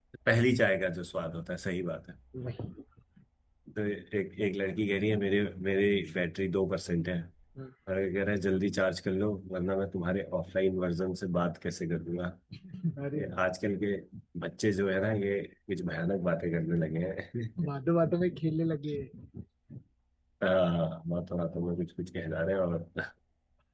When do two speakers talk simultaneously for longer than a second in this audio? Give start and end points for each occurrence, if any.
none

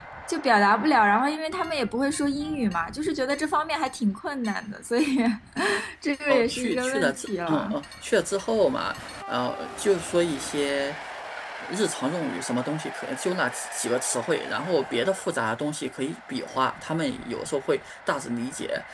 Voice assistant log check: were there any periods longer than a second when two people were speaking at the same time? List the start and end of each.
6.3-7.8

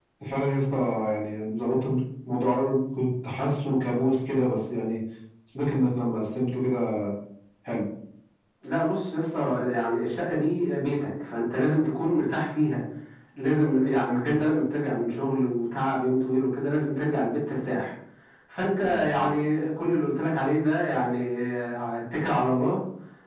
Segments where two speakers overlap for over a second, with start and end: none

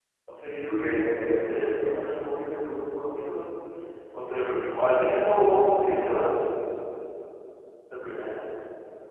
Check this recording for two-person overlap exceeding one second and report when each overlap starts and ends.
0.7-2.4

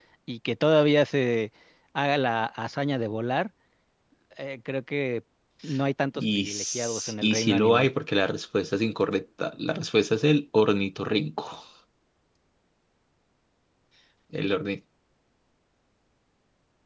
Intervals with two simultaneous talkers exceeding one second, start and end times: 6.2-7.9

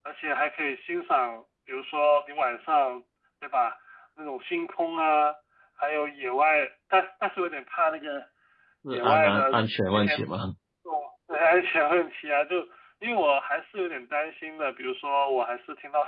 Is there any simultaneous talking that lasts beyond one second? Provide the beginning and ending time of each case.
8.9-10.2

